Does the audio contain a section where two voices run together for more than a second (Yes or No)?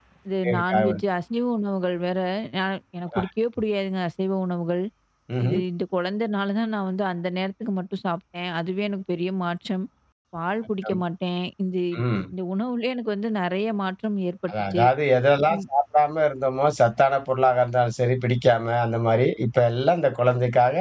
No